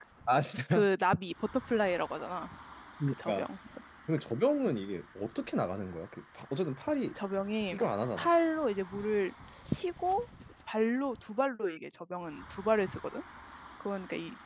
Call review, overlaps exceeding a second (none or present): none